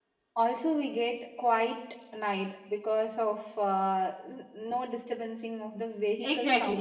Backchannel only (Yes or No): No